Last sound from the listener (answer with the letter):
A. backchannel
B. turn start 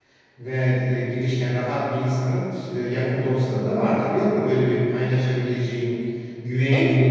B